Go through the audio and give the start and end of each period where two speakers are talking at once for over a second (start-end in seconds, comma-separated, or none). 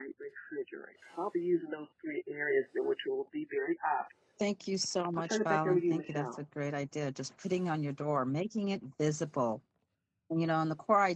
5.2-6.4